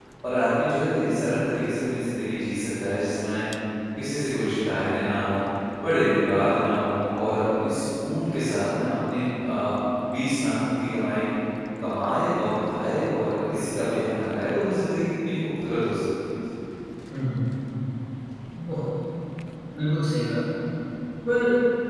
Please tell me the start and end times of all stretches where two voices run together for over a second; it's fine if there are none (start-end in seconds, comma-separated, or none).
none